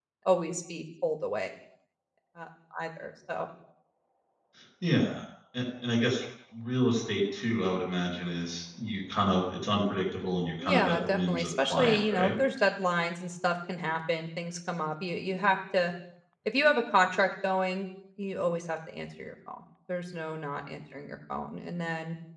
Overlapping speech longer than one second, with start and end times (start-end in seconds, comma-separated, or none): 10.6-12.3